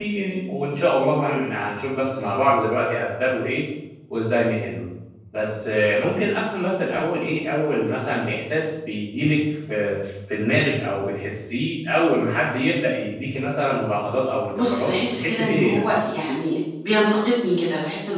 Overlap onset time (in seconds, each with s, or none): 14.6 s